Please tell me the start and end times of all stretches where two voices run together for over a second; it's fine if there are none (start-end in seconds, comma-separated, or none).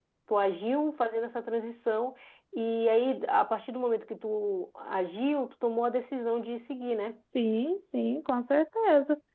none